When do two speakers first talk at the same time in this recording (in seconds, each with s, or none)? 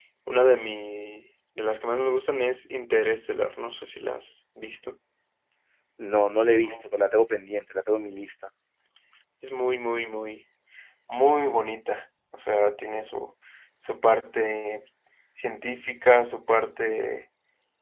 none